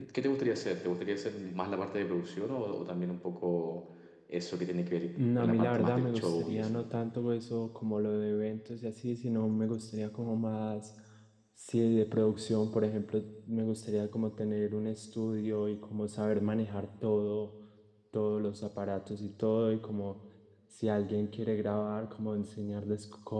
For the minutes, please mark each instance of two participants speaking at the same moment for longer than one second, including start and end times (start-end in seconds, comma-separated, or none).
5.2-6.8